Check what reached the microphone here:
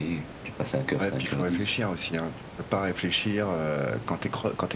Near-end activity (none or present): none